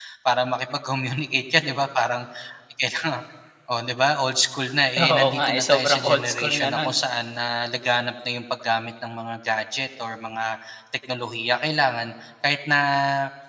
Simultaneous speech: Yes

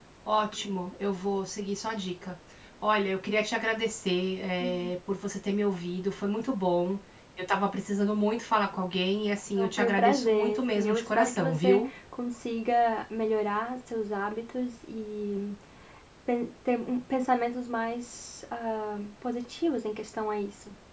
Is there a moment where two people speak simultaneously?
Yes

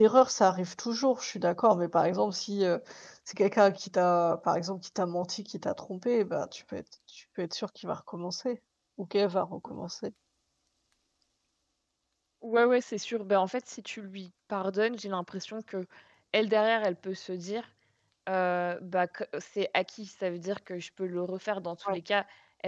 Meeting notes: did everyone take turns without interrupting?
Yes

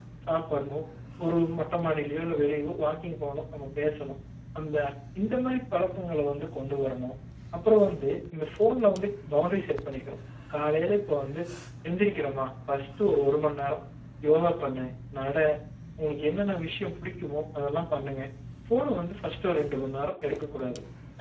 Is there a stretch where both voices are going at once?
No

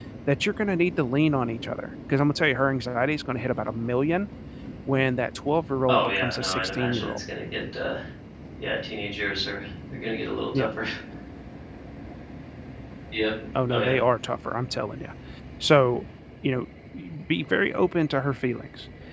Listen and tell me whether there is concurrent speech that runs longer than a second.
Yes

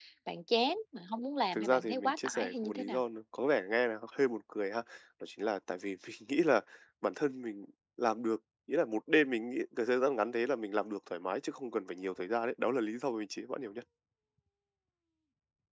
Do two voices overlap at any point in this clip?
Yes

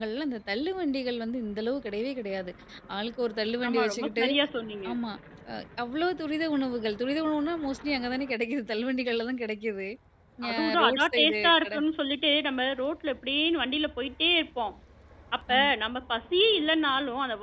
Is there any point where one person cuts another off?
Yes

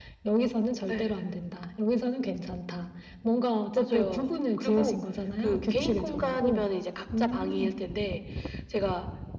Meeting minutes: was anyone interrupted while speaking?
Yes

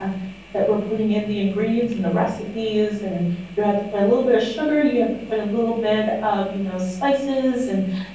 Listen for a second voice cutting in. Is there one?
No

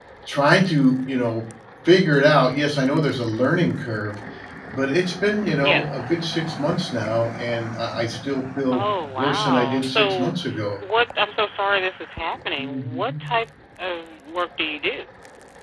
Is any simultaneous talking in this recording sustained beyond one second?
Yes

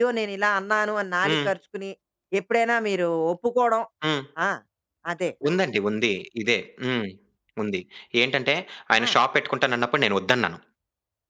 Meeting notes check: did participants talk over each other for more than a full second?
No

